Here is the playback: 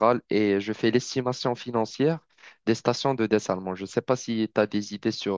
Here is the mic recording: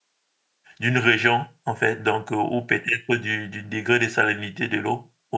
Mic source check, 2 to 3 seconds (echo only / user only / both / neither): user only